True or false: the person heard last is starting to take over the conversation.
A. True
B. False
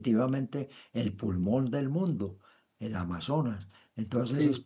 B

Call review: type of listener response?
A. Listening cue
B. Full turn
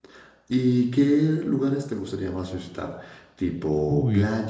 A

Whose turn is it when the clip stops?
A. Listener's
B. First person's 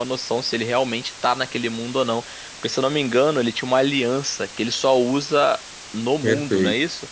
A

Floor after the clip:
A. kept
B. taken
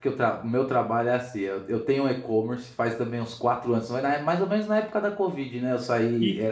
A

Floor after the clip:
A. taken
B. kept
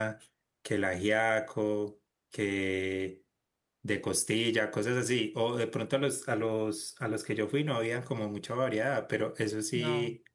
B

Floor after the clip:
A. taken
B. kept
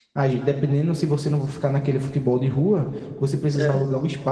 B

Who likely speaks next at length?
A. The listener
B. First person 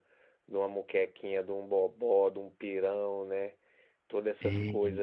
B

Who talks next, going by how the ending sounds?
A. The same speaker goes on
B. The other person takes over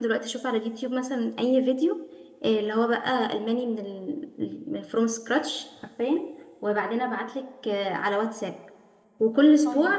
A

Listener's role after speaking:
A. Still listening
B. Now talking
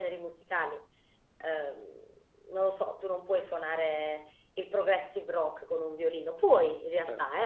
A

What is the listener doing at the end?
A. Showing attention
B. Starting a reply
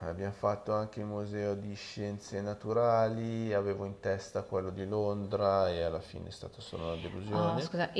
B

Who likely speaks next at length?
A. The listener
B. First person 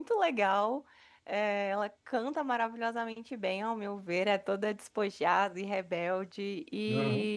B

